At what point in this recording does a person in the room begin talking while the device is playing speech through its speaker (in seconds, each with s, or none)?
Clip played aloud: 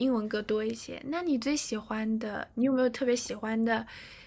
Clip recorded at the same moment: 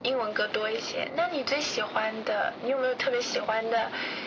none